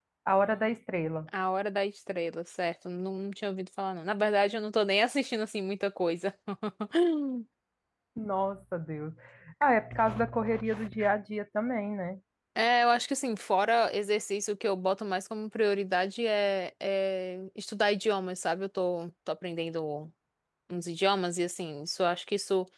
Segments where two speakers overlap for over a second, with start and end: none

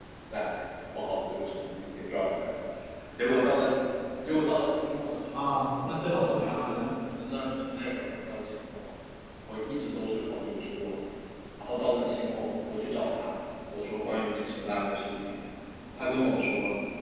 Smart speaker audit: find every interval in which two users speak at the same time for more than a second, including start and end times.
5.3-6.9

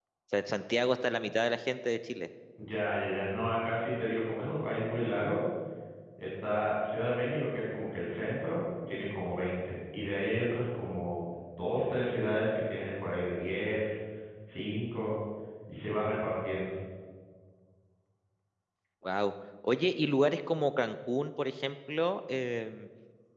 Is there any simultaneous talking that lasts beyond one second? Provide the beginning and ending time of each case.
none

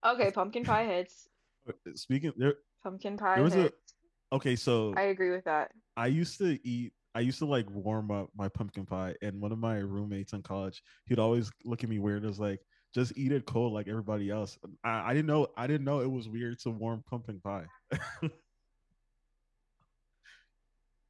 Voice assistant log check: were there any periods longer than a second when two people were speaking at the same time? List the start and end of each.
none

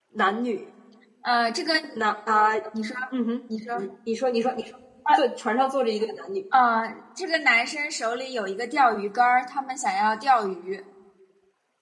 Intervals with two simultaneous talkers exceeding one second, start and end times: none

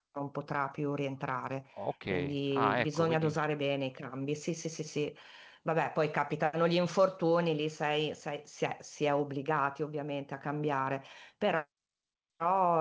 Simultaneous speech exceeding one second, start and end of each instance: 2.1-3.3

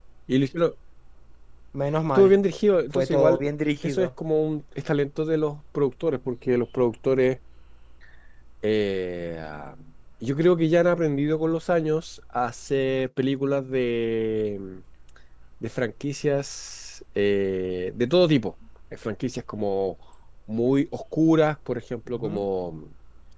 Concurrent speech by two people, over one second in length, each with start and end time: none

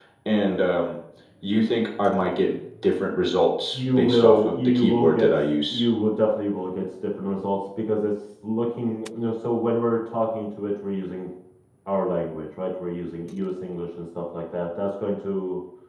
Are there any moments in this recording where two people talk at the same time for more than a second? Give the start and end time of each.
3.7-5.8

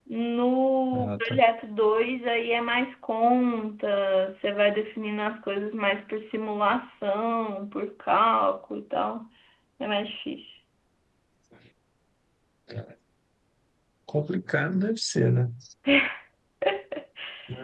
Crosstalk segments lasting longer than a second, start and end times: none

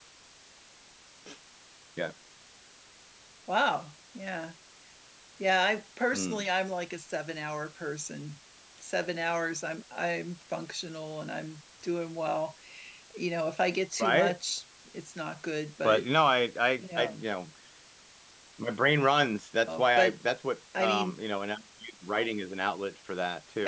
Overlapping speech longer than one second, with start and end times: none

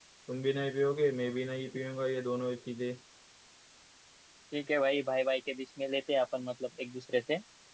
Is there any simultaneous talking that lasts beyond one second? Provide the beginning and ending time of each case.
none

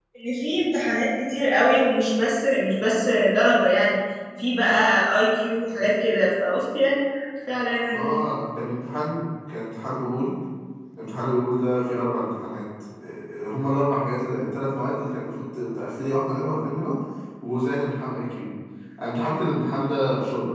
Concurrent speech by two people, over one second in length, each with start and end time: none

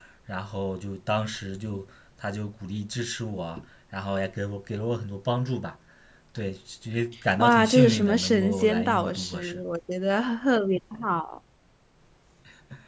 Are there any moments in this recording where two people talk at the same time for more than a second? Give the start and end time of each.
7.4-9.6

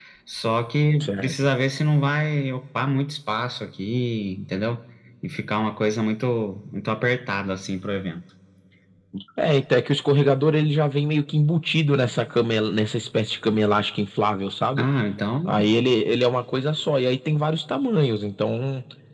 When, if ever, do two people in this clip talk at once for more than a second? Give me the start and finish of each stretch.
none

